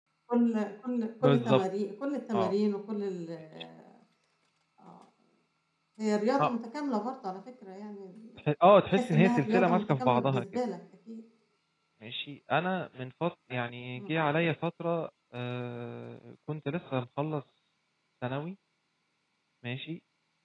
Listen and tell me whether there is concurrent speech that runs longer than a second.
Yes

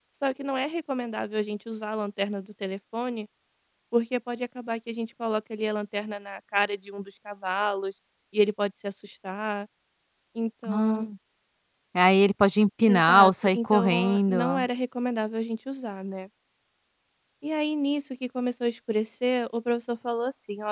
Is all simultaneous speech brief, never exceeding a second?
No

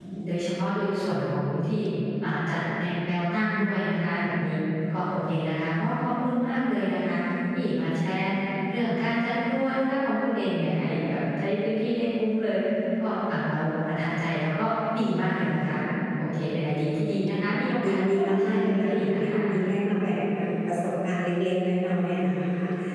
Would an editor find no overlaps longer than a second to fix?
No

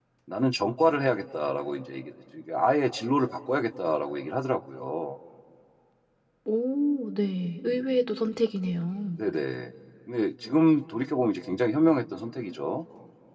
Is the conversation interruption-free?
Yes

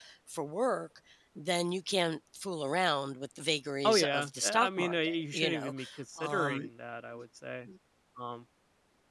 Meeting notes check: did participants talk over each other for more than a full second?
Yes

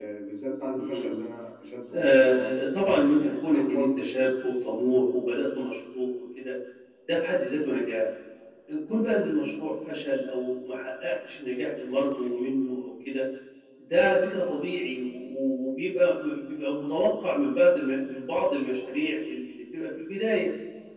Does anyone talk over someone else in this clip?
Yes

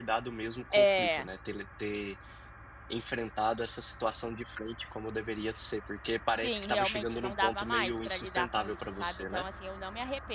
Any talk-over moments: Yes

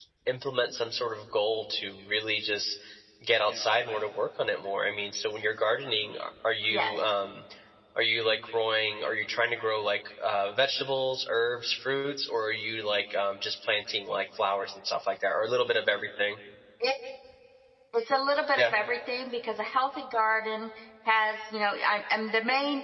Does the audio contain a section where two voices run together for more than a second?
No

